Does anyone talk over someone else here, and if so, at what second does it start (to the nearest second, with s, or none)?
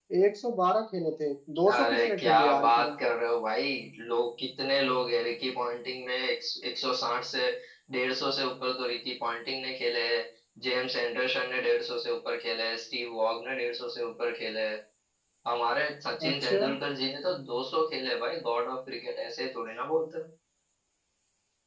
2 s